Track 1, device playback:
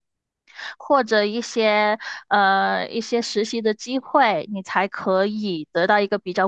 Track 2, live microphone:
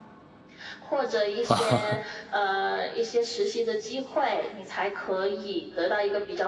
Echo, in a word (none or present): present